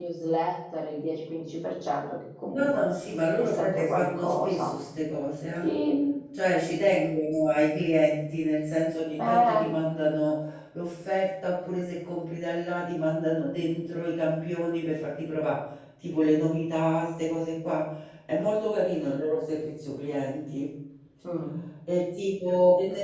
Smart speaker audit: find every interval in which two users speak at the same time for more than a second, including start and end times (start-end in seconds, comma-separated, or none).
3.4-4.7